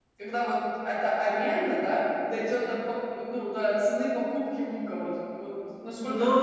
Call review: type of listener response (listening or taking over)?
taking over